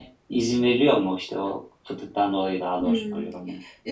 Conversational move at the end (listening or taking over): taking over